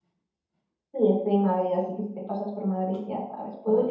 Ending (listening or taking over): taking over